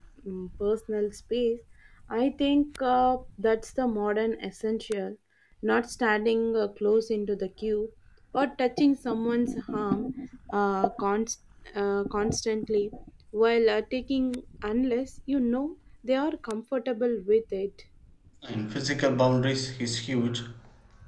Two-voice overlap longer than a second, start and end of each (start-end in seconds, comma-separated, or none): none